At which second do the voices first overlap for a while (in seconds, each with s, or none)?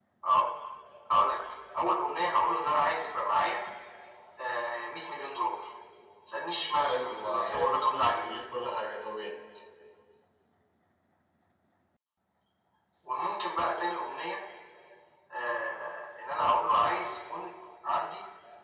6.7 s